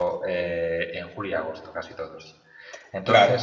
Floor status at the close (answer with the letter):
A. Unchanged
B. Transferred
A